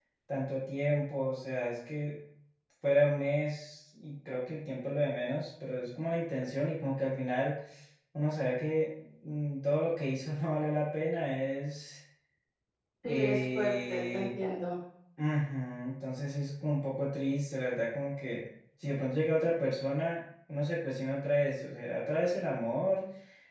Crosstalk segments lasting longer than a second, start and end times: 13.1-14.3

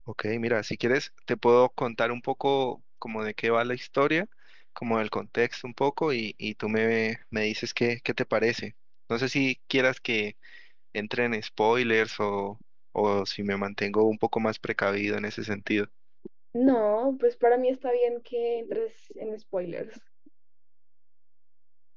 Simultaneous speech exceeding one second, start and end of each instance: none

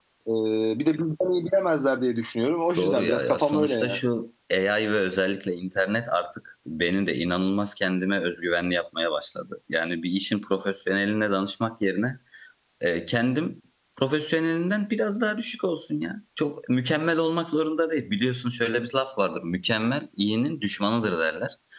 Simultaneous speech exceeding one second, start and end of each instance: 2.8-4.0

